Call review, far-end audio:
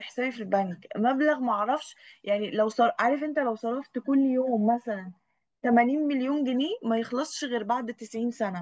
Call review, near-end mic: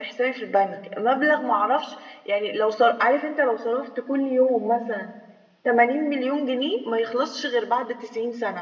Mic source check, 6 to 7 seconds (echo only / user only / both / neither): echo only